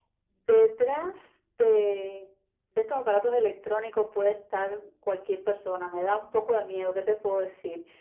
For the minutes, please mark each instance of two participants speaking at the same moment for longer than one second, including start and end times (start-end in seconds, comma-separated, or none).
none